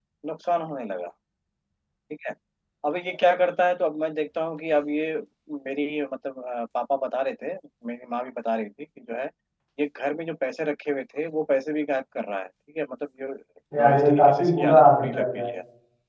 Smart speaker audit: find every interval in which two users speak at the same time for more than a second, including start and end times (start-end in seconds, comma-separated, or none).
13.8-15.4